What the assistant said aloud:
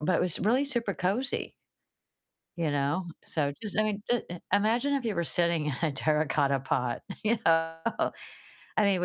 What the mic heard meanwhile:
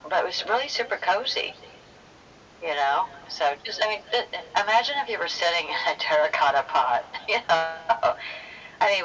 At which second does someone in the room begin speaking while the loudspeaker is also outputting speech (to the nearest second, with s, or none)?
none